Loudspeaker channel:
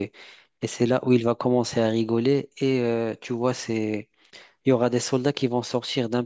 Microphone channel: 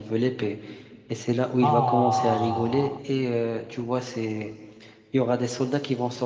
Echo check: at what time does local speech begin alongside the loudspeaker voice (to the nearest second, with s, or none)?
2 s